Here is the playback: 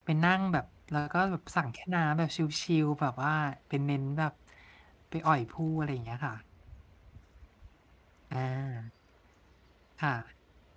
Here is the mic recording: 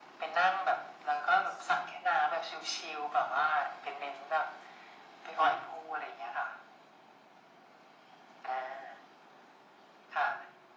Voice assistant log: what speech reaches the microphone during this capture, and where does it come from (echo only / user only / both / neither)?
echo only